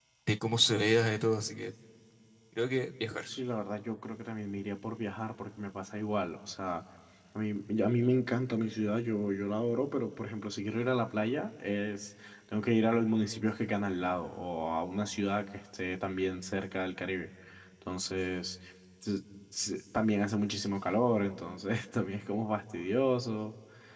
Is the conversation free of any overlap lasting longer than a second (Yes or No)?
Yes